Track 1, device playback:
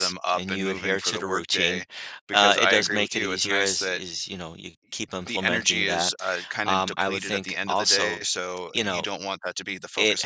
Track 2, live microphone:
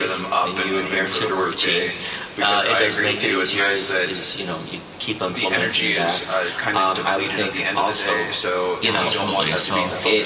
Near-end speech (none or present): present